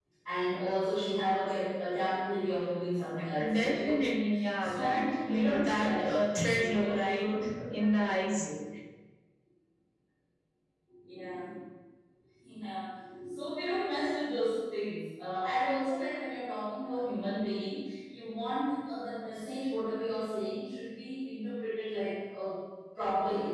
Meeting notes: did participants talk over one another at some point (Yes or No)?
Yes